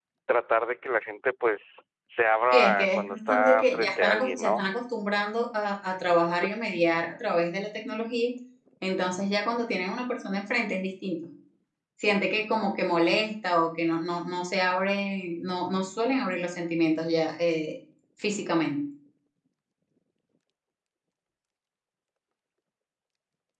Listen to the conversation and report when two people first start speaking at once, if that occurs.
2.5 s

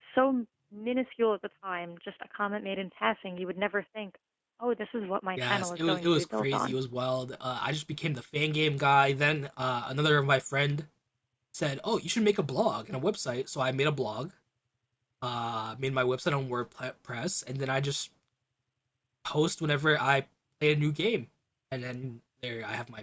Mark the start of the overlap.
5.4 s

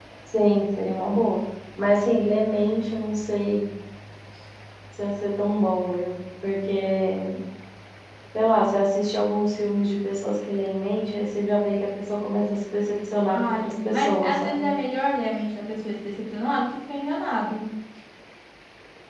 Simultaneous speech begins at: 13.3 s

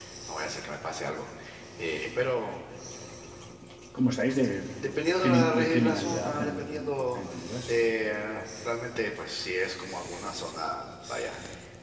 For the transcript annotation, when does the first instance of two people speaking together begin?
5.2 s

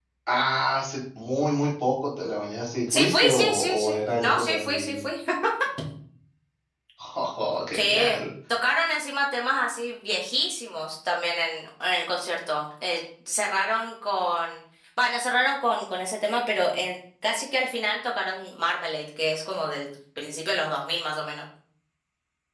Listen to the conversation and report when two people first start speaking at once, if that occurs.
2.9 s

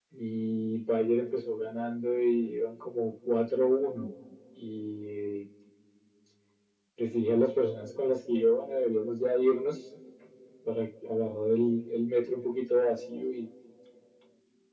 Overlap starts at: none

